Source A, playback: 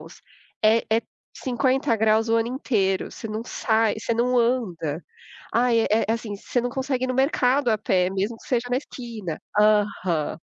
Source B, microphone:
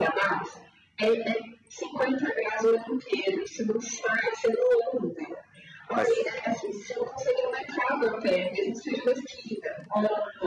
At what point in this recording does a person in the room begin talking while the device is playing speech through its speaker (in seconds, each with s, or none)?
5.9 s